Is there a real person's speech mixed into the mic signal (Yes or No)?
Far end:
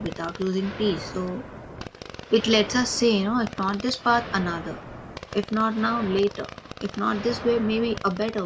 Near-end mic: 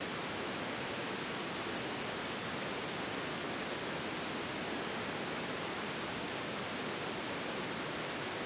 No